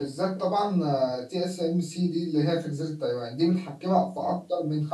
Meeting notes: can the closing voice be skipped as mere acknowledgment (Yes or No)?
Yes